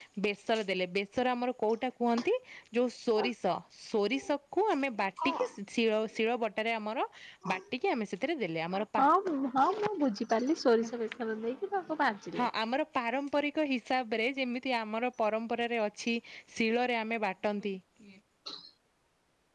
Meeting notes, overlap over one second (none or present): none